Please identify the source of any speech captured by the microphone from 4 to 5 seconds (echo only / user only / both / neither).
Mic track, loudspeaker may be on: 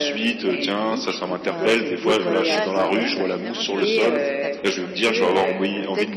both